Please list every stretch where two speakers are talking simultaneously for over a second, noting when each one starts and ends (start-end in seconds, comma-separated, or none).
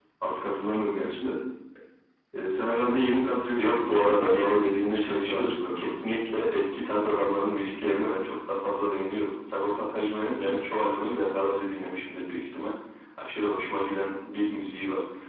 3.6-5.9